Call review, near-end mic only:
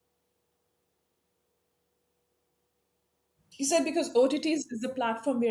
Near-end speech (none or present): present